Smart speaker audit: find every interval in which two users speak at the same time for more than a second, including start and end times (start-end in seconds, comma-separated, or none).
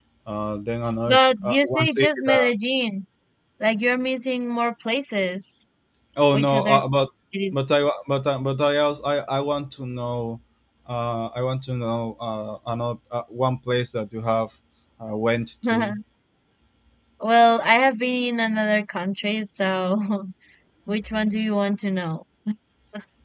1.1-2.5